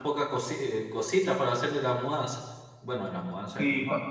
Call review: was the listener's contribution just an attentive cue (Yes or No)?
No